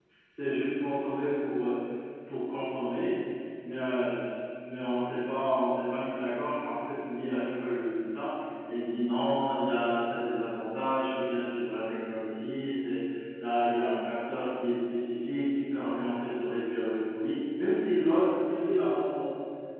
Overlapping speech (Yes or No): No